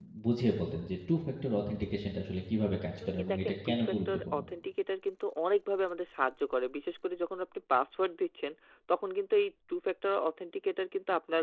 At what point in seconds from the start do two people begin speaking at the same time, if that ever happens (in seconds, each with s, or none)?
3.0 s